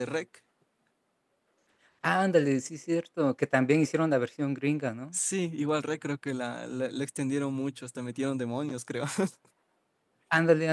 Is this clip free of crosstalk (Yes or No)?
Yes